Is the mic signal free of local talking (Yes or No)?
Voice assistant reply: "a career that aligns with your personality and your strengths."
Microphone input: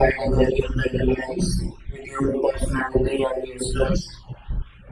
Yes